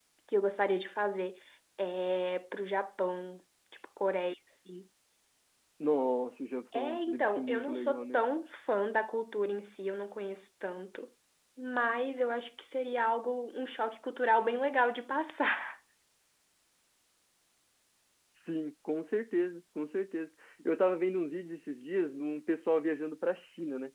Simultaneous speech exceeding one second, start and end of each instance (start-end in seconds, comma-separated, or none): 6.7-8.2